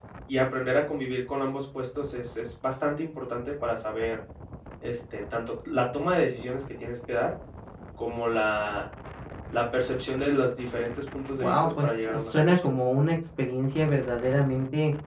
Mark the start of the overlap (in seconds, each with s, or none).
11.3 s